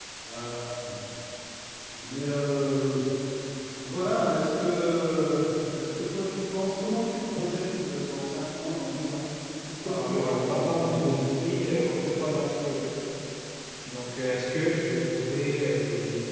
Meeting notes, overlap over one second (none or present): present